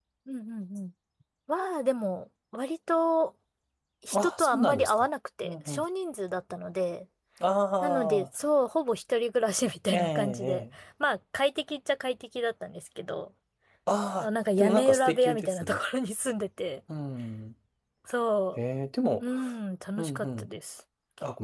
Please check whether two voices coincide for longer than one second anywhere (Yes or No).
Yes